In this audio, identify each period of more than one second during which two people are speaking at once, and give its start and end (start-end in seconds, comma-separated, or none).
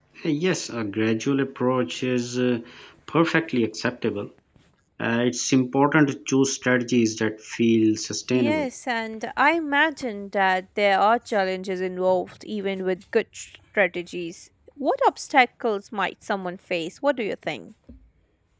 none